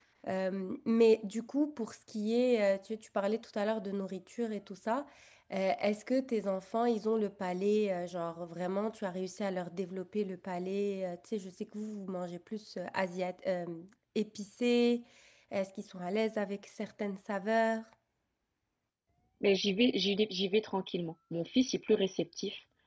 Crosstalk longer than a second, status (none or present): none